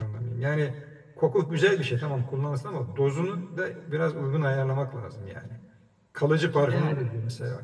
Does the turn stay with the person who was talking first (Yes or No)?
Yes